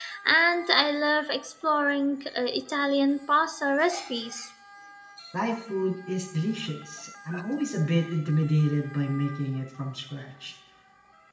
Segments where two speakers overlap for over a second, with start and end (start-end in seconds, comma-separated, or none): none